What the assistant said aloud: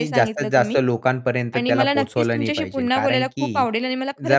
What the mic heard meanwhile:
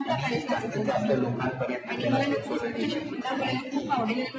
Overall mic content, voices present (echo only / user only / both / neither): echo only